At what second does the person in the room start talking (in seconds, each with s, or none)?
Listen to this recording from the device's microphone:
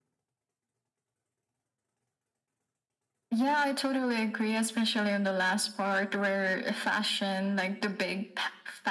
none